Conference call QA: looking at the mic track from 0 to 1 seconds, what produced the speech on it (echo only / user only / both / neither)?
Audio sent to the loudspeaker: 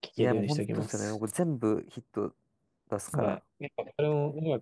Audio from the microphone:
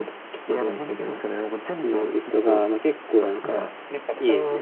echo only